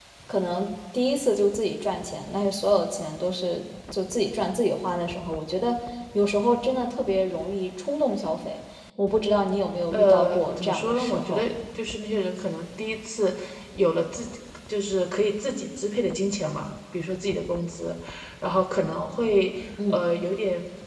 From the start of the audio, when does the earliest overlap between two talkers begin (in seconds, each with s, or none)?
9.9 s